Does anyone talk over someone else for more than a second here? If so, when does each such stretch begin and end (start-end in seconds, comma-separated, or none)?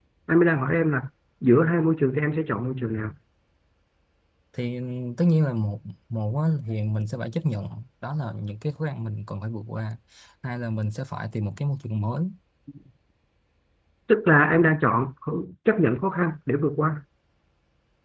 none